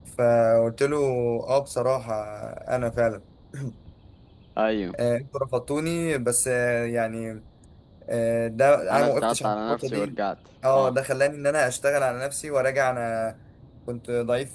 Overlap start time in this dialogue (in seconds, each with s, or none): 8.9 s